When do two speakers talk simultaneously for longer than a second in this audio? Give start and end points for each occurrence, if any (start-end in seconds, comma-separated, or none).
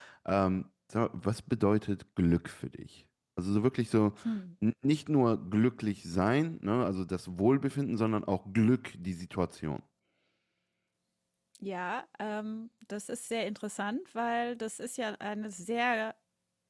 none